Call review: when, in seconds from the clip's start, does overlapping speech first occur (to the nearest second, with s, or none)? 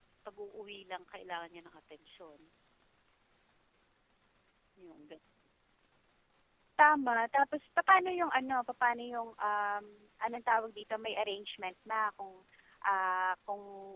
none